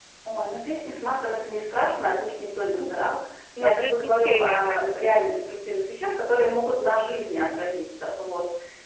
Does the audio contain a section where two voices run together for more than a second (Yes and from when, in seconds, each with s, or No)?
Yes, from 3.6 s